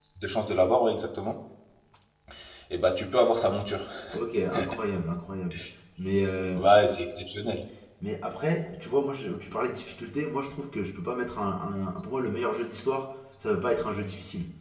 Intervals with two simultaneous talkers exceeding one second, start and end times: none

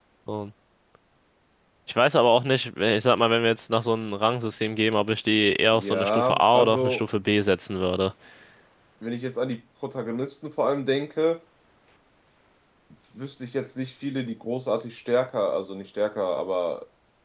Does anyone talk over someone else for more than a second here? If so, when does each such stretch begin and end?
5.7-7.0

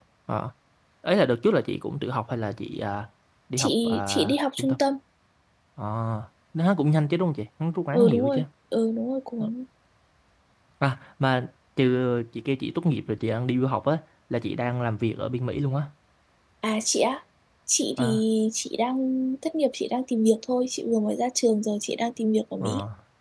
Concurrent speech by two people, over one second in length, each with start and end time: 3.6-4.8

